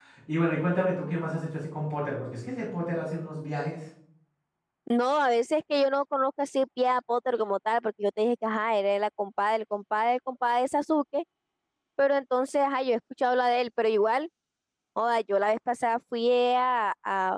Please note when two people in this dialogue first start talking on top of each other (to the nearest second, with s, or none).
none